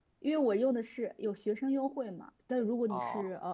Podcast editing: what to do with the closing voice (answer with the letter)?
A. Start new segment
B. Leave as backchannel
B